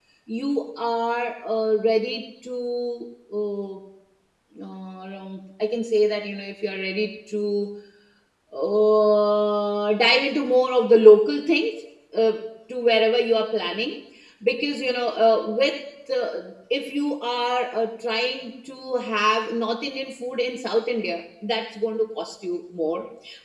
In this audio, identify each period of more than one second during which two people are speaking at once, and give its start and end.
none

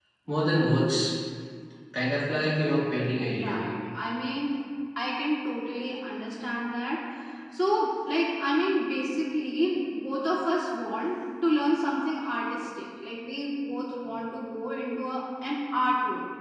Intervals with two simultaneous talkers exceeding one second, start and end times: none

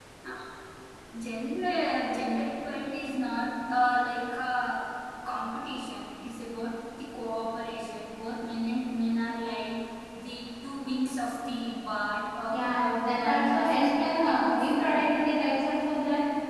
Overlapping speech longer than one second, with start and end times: 12.5-15.2

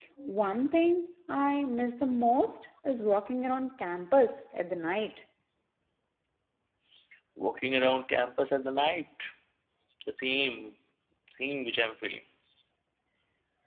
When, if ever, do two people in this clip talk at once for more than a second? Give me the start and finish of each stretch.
none

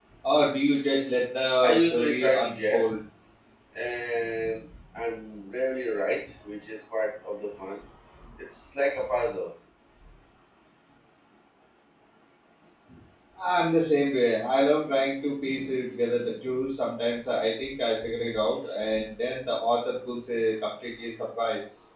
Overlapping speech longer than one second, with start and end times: 1.6-3.0

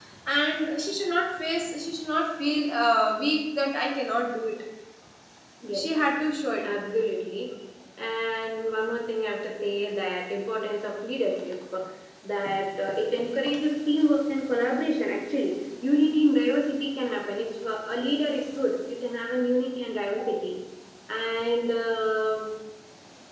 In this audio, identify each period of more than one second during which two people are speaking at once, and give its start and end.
none

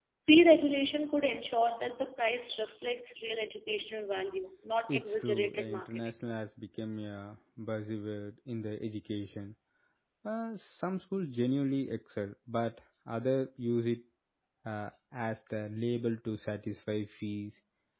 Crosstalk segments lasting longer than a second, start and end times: 4.9-6.1

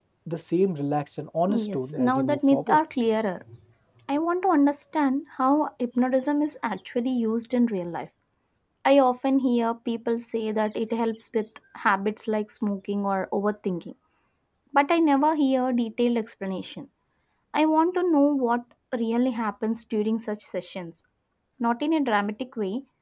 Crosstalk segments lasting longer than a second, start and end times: 1.5-2.8

